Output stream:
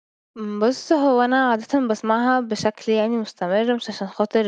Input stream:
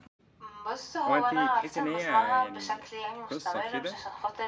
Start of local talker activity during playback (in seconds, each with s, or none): 1.1 s